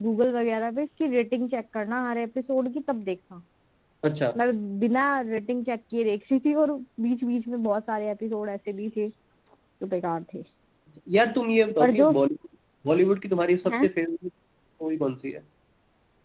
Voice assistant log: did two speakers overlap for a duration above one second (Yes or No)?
No